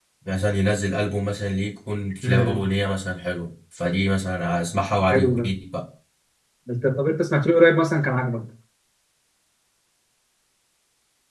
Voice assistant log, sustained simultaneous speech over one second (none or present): none